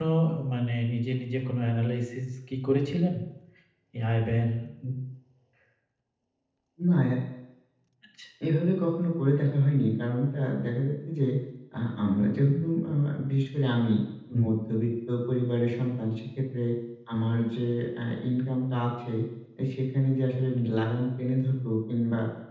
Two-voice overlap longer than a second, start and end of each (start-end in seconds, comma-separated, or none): none